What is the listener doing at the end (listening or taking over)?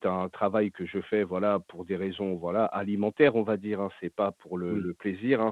listening